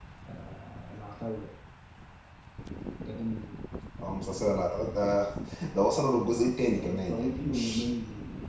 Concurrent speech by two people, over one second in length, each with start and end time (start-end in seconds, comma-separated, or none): 6.4-7.9